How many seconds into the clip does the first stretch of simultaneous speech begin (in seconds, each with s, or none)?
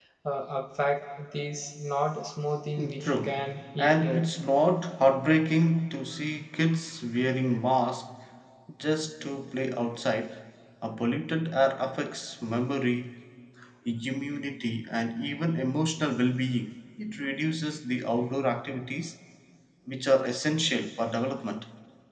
2.8 s